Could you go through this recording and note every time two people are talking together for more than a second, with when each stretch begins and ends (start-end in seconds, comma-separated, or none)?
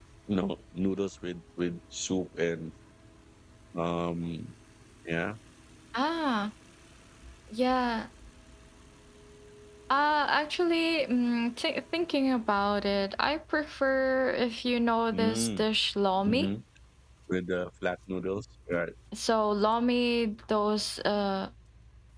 none